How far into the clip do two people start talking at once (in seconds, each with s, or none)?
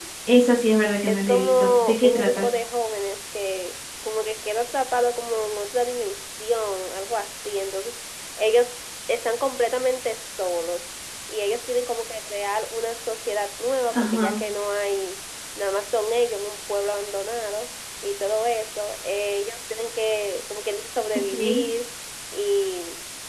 1.1 s